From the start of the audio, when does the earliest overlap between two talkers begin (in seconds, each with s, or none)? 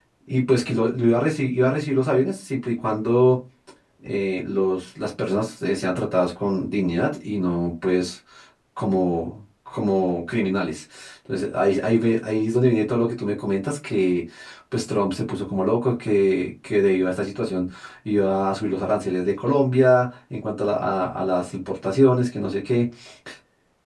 none